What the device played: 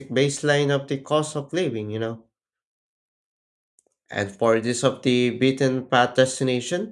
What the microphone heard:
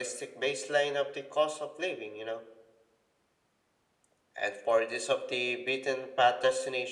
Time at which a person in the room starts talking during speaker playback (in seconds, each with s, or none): none